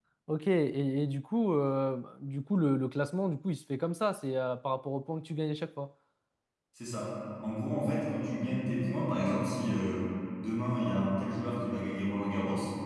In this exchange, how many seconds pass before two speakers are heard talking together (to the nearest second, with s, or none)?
none